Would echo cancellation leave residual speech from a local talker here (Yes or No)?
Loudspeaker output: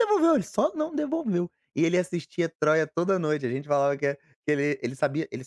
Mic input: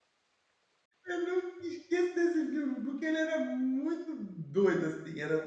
Yes